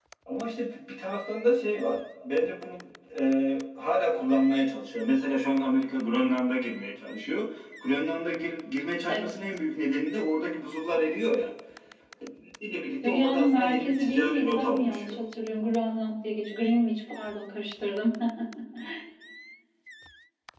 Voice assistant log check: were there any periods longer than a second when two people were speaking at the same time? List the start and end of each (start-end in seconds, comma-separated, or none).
13.0-15.2